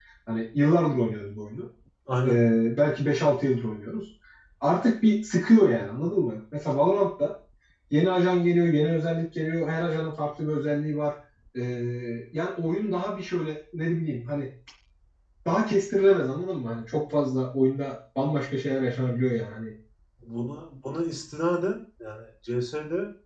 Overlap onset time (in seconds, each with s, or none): none